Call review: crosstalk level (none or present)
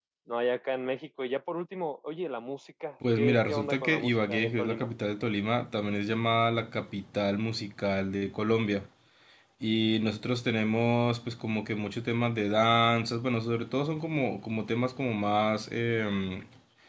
present